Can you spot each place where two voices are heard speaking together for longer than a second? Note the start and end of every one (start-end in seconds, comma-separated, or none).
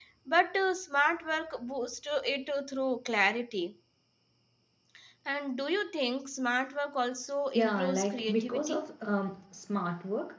7.5-8.9